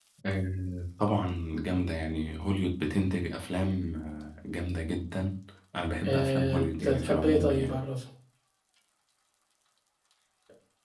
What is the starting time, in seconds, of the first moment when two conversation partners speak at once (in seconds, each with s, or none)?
6.0 s